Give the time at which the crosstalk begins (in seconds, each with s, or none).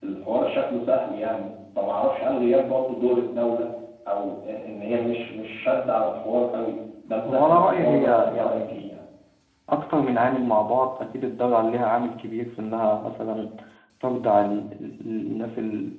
7.2 s